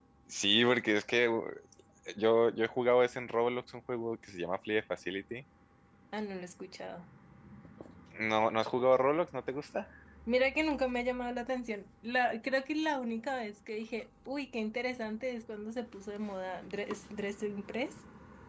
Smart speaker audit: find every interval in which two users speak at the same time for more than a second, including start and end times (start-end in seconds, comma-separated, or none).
none